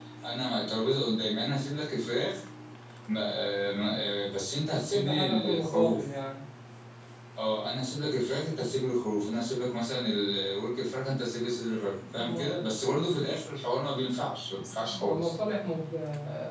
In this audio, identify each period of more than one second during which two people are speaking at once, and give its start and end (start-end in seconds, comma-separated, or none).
4.7-6.0